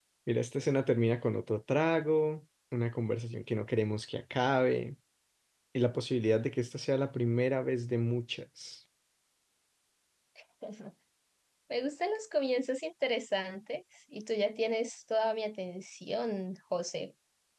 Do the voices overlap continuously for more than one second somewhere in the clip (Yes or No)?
No